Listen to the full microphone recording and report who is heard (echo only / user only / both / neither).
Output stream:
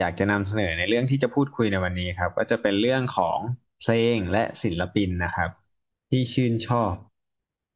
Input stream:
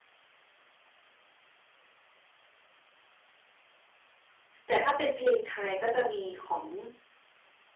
user only